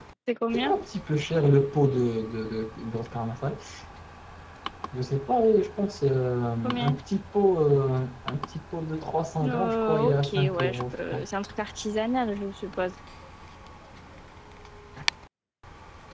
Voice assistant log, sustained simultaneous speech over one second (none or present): present